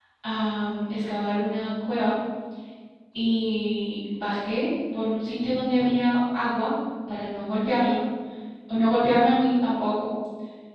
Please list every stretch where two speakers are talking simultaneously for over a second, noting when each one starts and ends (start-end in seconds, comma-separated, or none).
none